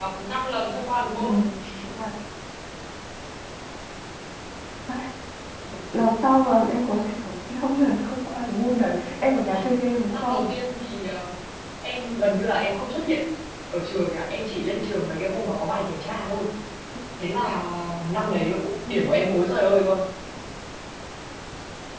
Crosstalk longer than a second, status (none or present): none